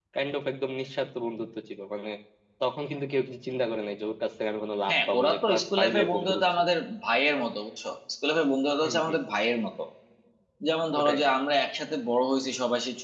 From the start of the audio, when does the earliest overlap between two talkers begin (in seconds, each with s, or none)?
4.9 s